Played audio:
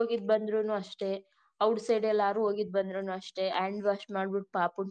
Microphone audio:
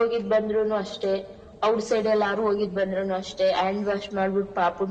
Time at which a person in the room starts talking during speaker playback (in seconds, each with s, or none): none